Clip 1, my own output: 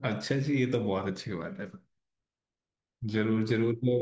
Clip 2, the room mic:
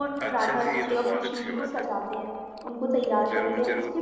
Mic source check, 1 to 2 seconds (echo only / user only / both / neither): both